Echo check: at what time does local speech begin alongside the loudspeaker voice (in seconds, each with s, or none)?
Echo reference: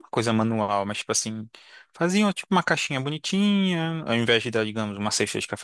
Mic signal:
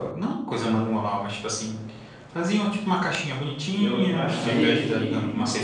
3.8 s